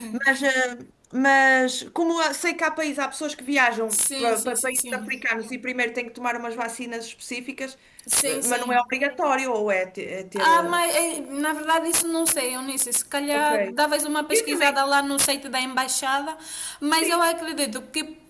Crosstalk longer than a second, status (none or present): present